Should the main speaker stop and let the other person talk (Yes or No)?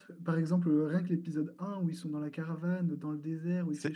No